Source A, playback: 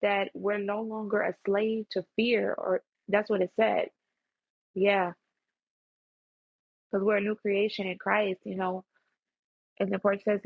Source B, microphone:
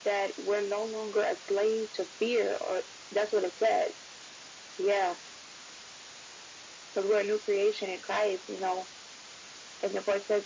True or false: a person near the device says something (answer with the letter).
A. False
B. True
A